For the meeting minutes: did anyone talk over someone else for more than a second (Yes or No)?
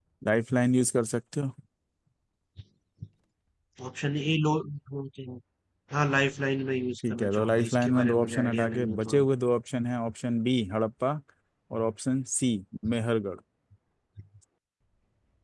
Yes